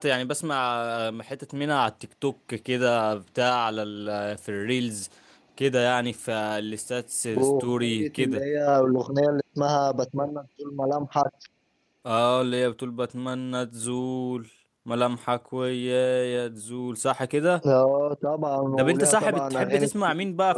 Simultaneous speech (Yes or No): Yes